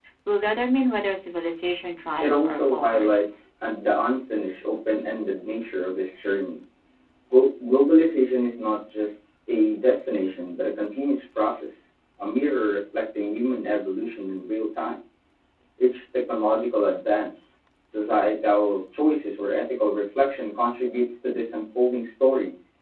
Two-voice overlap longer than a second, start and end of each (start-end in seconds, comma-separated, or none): 2.2-3.4